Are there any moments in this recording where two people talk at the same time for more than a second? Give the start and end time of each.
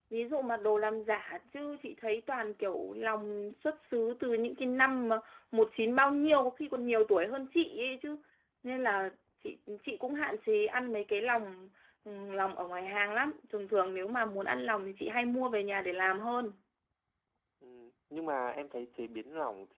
none

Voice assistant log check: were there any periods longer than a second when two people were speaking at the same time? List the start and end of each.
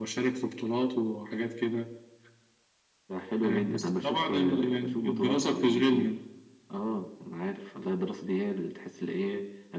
3.4-6.1

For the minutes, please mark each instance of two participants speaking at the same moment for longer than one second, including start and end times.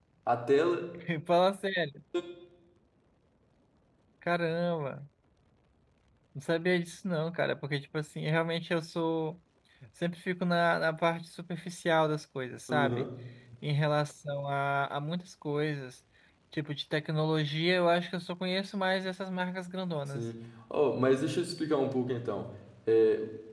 none

